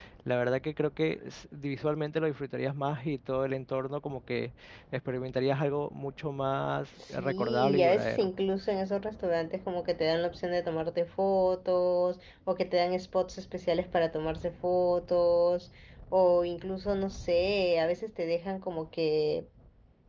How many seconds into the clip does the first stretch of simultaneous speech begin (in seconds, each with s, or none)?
7.0 s